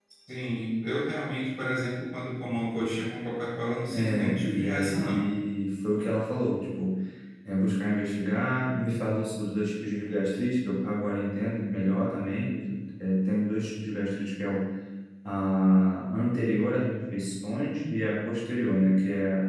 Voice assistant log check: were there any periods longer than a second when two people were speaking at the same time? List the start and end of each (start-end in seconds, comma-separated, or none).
3.9-5.3